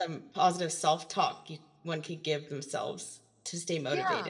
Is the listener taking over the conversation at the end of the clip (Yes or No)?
Yes